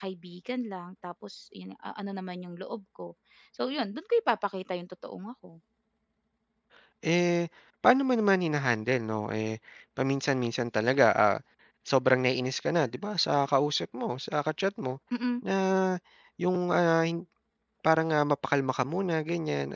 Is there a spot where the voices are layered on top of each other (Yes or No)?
No